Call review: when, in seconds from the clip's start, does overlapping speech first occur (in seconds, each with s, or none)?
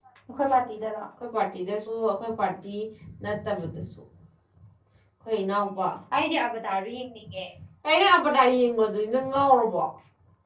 none